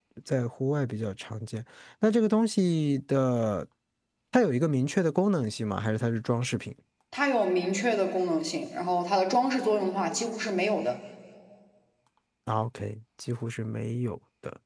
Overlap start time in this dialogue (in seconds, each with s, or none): none